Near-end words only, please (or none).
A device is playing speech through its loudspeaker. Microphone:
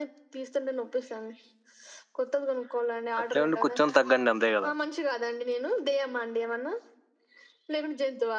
అట్లే ఉండి కొంచం తగ్గండి అంతే కదా